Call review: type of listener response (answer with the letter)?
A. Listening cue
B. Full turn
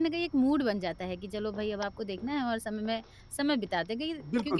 B